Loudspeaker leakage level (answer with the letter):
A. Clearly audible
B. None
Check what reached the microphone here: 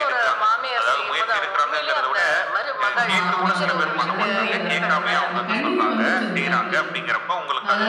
A